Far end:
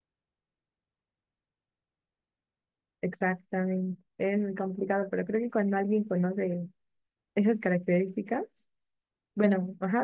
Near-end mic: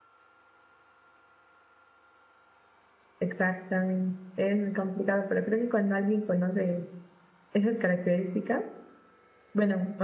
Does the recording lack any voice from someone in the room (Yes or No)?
Yes